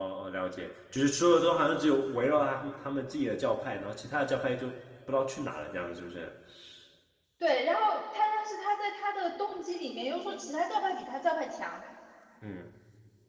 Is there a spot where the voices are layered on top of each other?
No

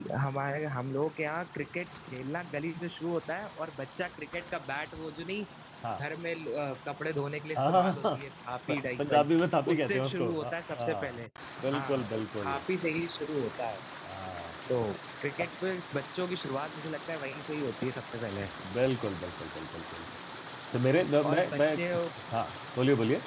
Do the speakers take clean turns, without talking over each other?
No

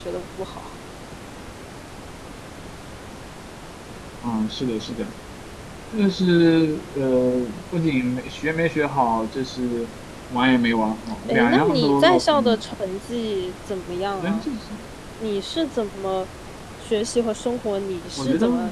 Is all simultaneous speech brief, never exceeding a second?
No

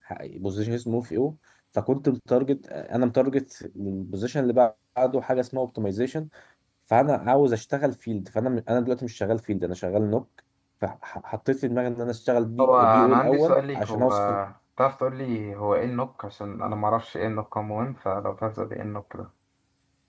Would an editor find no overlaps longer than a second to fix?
No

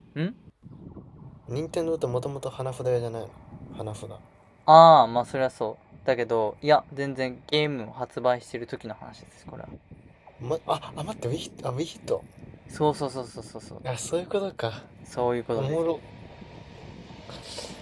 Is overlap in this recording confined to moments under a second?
Yes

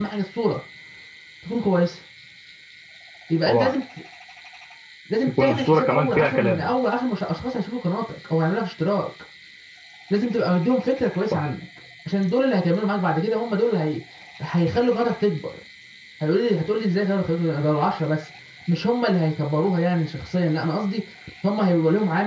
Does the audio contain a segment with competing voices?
Yes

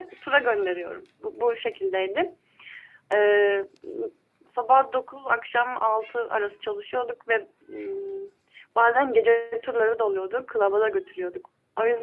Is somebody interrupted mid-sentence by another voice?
No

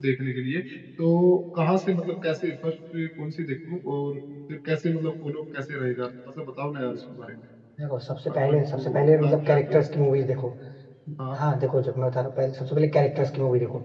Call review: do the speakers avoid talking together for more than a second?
No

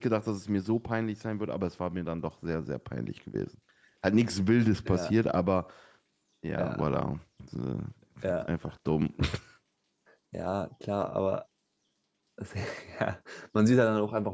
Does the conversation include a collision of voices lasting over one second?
No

